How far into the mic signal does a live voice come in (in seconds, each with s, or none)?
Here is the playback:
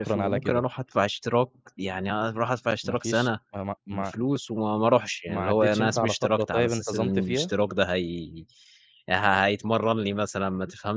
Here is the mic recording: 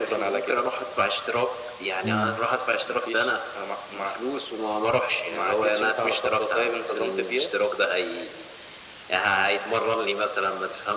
2.0 s